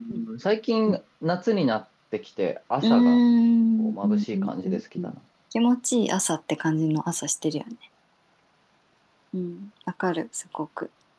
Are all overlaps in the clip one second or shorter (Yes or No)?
No